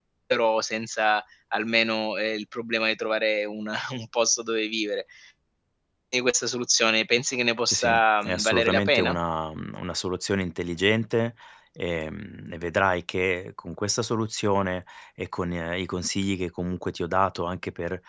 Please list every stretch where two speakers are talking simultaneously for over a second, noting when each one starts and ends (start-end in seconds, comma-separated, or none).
7.7-9.2